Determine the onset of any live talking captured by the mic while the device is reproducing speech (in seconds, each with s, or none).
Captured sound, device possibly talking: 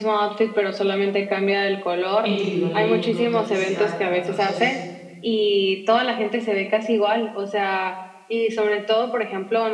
2.2 s